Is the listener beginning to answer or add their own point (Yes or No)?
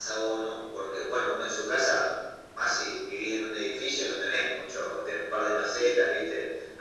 No